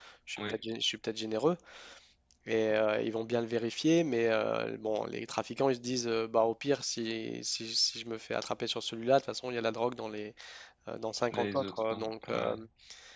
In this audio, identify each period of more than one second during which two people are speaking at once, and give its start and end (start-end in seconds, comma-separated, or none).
11.3-12.6